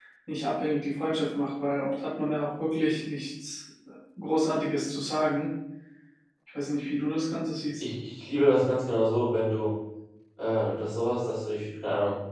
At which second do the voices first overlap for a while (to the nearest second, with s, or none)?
none